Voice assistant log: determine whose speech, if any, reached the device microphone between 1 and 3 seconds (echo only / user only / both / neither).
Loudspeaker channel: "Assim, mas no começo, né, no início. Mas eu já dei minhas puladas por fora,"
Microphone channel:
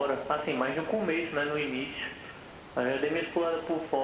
echo only